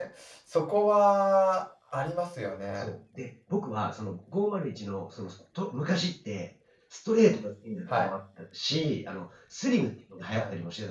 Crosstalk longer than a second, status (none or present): none